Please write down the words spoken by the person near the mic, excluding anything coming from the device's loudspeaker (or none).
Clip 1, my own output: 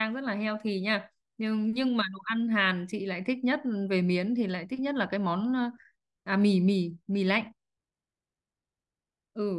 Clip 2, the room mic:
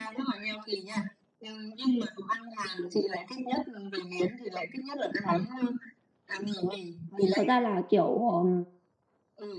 Thật ra là kiểu ừm,